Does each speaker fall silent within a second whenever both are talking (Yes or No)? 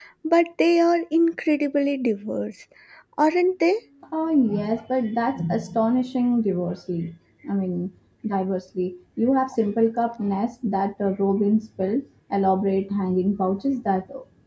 Yes